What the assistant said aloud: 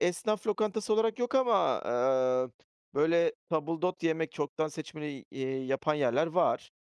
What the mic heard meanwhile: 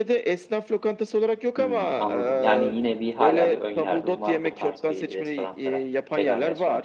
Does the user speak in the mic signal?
Yes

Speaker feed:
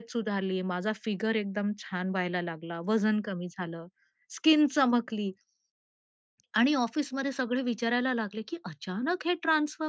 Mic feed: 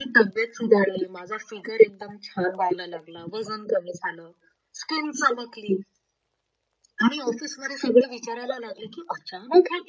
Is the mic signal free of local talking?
Yes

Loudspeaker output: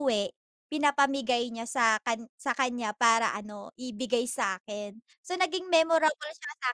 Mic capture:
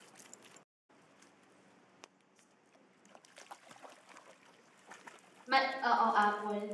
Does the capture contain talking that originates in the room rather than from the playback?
Yes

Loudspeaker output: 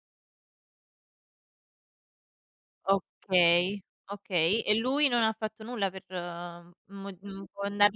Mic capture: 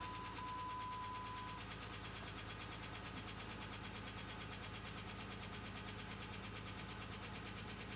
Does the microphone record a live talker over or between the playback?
No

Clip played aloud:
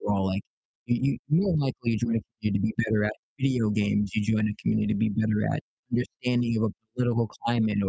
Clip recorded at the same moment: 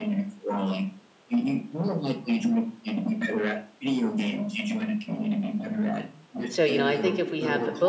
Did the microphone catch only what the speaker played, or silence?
No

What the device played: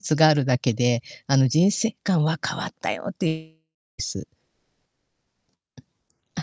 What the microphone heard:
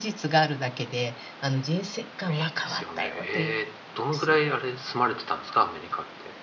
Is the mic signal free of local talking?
No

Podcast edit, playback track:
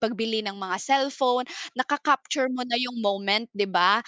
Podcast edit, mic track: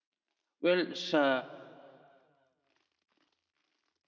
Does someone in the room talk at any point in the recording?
Yes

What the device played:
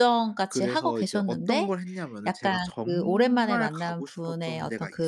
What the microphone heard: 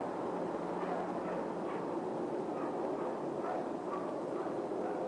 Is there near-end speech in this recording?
No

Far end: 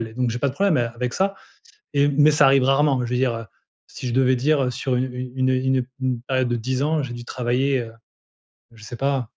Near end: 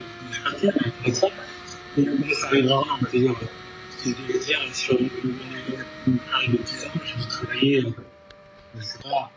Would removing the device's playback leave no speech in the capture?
Yes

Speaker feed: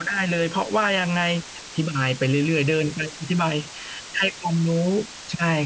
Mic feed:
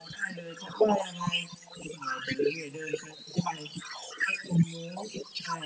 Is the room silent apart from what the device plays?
Yes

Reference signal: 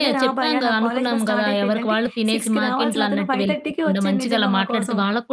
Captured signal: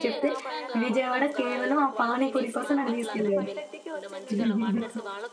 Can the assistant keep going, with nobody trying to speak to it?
No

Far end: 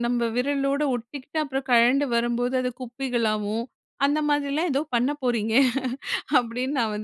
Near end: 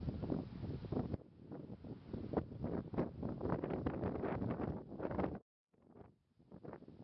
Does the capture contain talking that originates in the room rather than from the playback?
No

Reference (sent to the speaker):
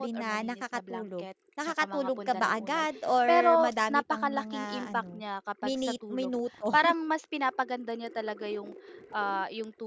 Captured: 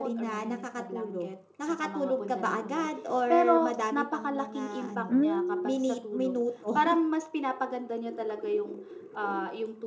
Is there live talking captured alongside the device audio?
Yes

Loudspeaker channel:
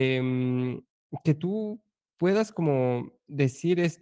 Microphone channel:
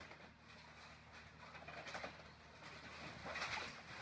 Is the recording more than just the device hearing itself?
No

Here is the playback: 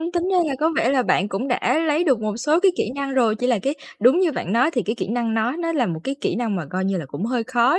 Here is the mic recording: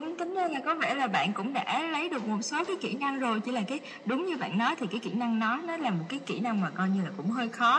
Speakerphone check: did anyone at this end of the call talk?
No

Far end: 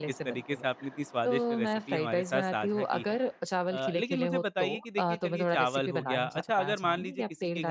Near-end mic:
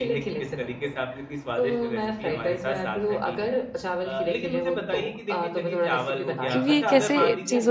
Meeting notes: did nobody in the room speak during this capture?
No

